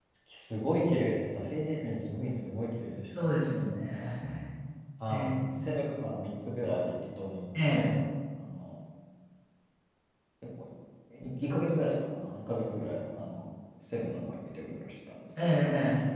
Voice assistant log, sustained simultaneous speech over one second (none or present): none